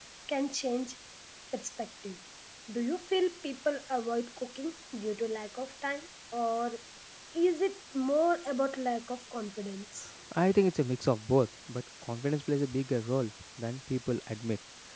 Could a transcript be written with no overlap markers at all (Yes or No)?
Yes